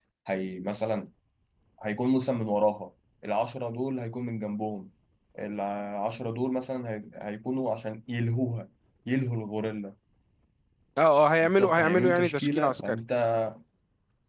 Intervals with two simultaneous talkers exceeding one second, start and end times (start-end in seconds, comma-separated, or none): 11.4-13.0